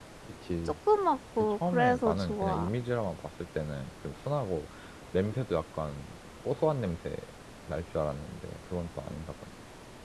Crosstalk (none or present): present